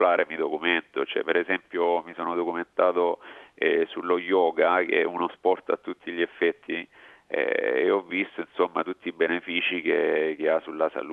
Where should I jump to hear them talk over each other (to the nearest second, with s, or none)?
none